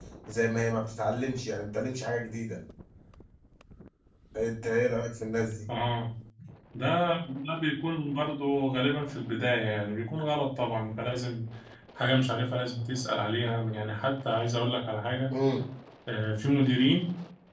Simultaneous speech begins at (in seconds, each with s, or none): none